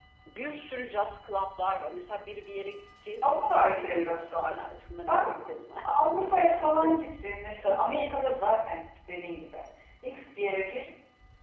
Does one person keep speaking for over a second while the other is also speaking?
Yes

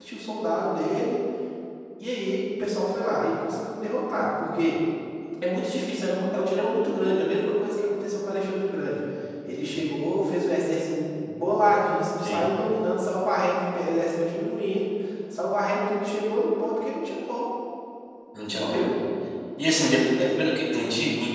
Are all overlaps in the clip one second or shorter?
Yes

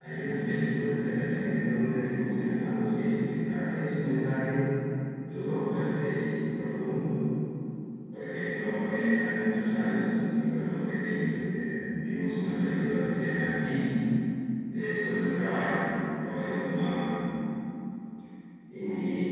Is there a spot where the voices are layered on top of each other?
No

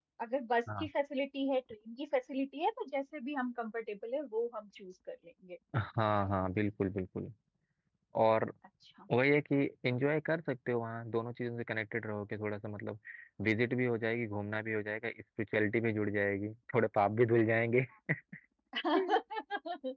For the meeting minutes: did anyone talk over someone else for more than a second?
No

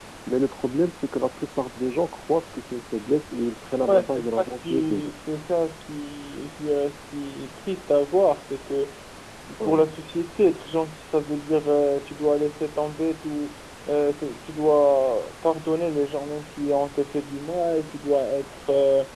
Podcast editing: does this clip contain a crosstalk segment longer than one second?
Yes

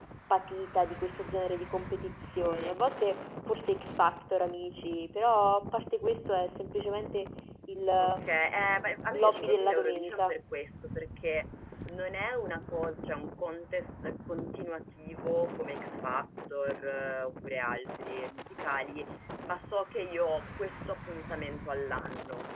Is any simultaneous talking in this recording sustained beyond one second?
Yes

